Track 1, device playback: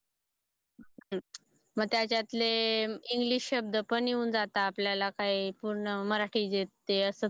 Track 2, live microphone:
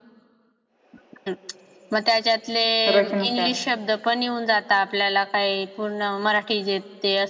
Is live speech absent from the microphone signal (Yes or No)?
No